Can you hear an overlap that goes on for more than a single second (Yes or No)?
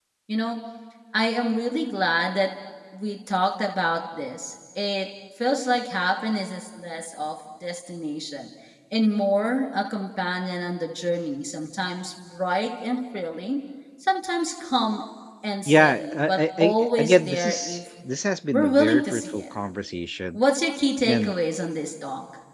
Yes